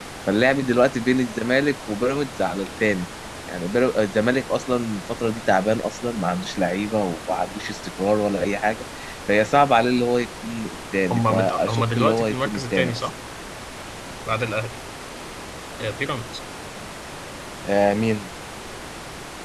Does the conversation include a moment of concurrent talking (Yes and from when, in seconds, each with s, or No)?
Yes, from 11.1 s